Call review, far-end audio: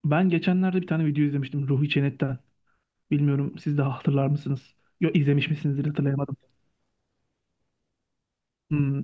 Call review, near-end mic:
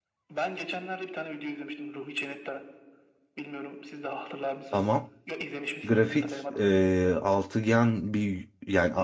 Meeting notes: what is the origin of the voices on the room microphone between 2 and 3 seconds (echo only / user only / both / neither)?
echo only